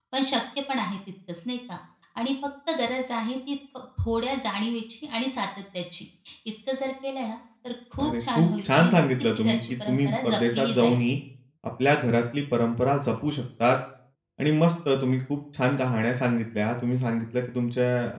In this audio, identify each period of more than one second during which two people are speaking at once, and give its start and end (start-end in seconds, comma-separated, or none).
8.0-11.0